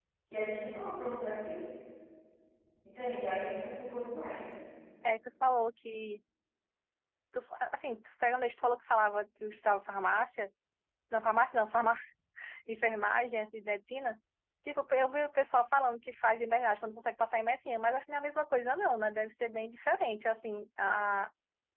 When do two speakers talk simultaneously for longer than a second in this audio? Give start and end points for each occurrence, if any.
none

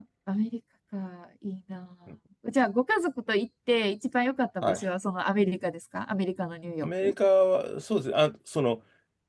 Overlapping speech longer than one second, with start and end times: none

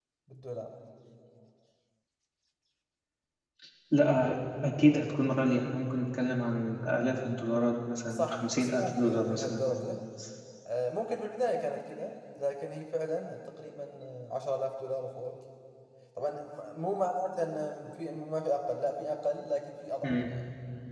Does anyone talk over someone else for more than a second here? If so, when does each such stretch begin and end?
8.1-9.6

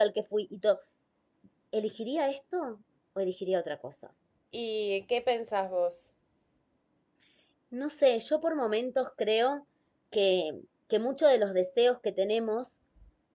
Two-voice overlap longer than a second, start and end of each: none

